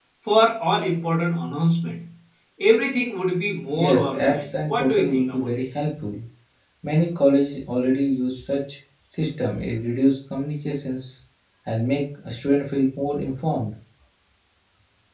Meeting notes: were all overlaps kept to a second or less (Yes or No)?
No